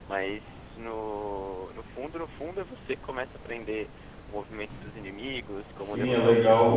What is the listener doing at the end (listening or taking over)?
taking over